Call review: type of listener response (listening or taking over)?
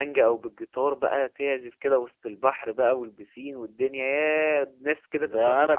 taking over